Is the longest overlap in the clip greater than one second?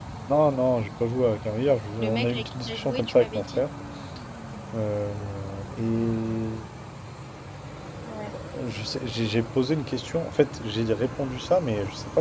Yes, from 2.0 s

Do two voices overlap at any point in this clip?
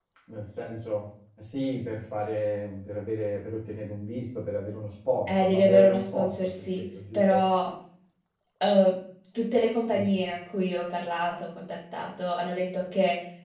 Yes, from 5.3 s

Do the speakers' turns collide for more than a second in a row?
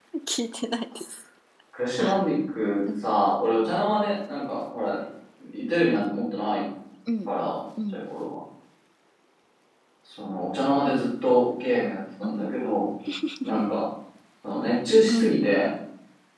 No

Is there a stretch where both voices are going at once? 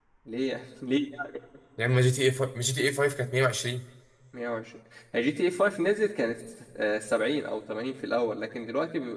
No

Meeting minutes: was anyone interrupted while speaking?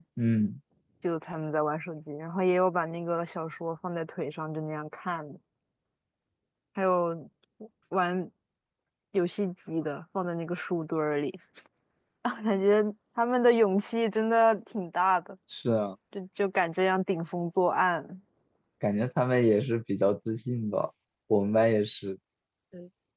No

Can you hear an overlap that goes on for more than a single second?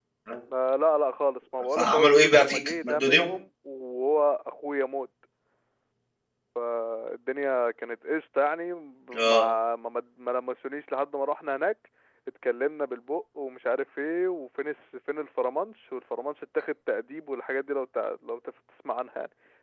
Yes, from 1.8 s

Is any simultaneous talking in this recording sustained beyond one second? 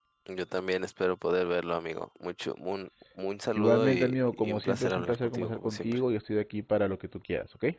Yes, from 3.6 s

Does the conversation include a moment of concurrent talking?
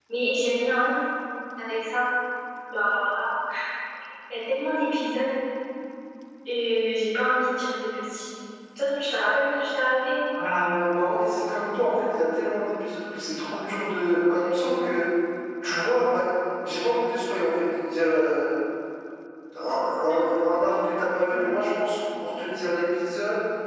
No

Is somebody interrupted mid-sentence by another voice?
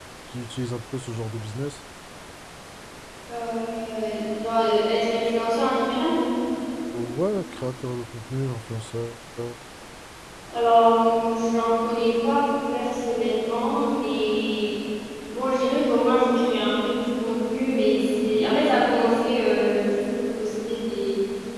No

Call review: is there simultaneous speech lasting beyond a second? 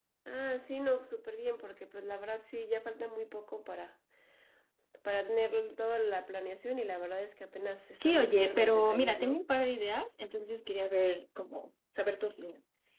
Yes, from 8.0 s

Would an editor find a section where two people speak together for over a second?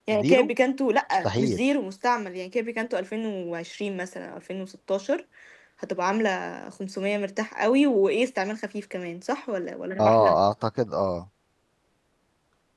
No

